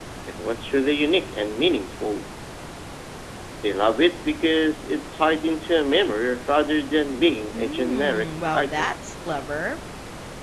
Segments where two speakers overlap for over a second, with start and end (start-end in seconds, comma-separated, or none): 7.5-8.9